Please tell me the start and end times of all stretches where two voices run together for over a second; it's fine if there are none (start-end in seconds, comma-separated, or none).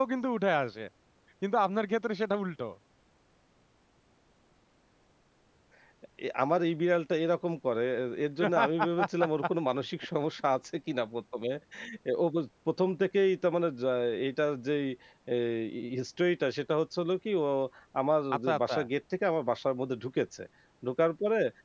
none